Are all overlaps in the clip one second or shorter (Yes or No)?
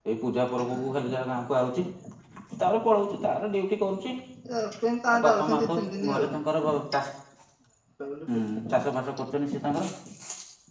No